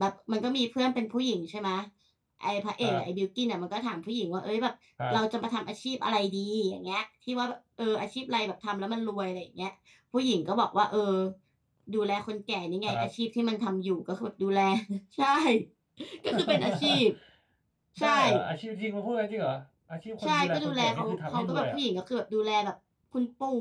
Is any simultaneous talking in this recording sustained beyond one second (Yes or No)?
Yes